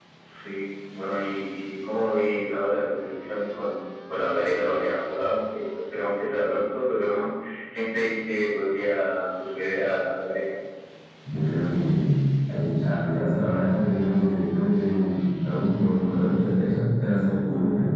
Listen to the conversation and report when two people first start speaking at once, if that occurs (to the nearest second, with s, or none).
none